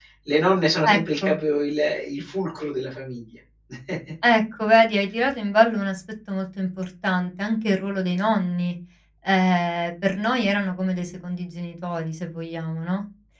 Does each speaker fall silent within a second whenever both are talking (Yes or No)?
Yes